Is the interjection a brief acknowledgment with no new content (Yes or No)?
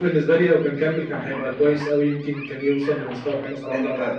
No